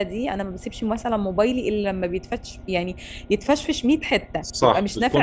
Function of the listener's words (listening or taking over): taking over